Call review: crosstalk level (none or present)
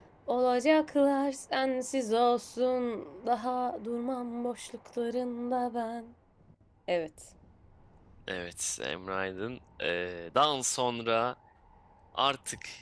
none